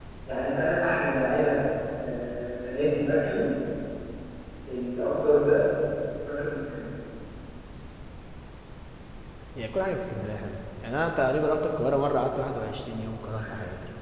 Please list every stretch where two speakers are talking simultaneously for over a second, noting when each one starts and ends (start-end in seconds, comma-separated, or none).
none